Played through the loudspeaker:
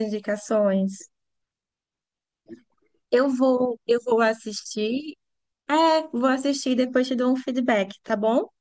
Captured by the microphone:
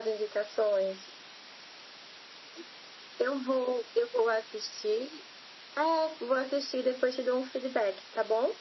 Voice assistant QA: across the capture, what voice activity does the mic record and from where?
echo only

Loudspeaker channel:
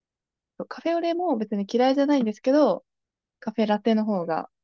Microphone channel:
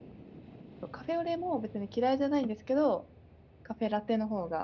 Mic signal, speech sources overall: echo only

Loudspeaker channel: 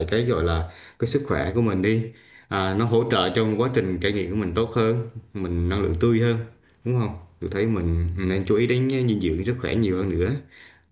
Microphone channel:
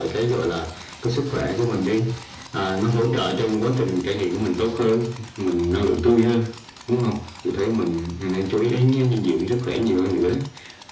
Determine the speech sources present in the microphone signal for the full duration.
echo only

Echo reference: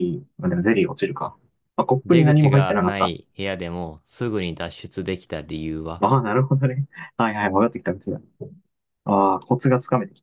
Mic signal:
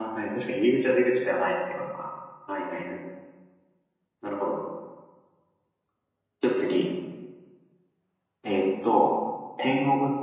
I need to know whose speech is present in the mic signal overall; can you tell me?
user only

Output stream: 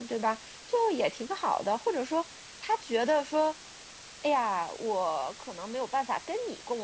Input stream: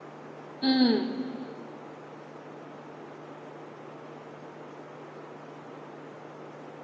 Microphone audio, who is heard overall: user only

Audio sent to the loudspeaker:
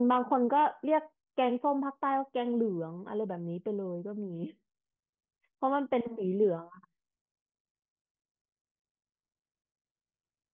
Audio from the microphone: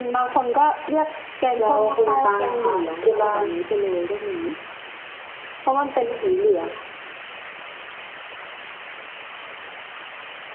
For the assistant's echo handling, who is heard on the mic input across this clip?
both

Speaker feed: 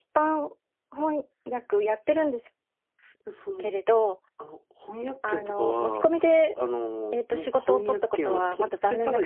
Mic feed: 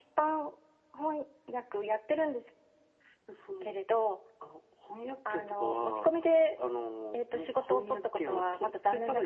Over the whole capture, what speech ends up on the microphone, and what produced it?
echo only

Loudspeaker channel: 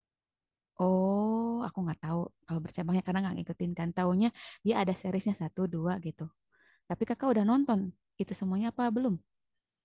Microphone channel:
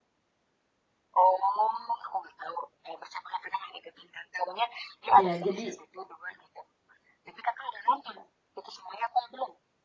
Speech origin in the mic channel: both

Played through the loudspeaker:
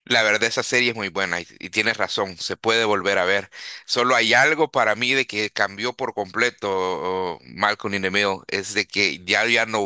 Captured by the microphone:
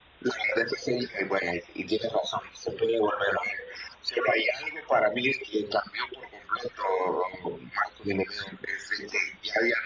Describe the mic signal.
echo only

